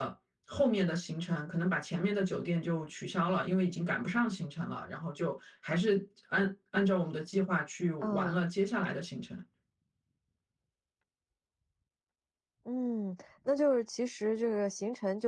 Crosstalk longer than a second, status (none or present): none